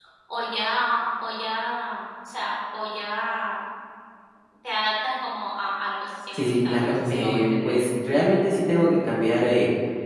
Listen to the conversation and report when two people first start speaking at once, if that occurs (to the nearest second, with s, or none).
6 s